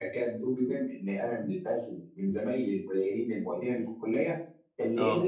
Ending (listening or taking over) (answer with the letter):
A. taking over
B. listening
B